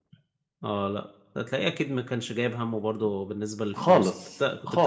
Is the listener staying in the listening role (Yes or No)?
No